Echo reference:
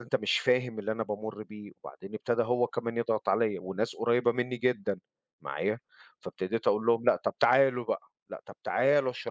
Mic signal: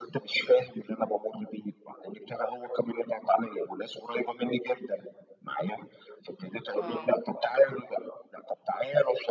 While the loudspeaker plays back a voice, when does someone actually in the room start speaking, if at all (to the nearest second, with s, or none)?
7 s